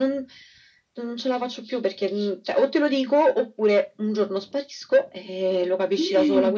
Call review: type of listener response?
listening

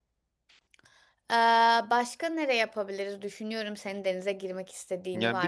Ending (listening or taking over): taking over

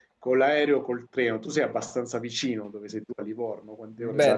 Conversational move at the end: taking over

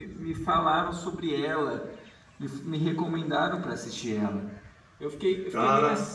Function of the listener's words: listening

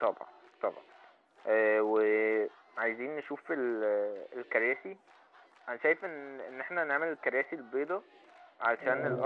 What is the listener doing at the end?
listening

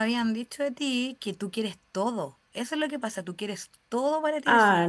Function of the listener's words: taking over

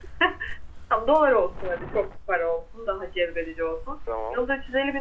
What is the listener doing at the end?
listening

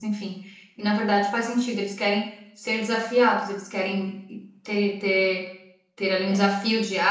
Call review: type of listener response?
listening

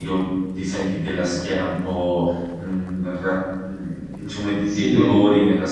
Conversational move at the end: listening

